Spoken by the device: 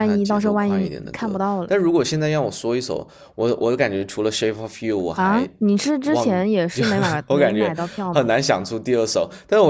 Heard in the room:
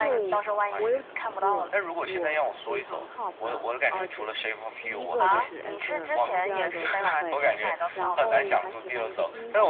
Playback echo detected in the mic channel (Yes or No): Yes